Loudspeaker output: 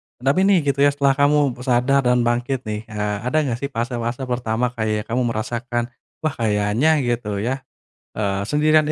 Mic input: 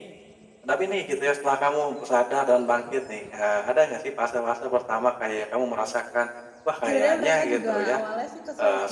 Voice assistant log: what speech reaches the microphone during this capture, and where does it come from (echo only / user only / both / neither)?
both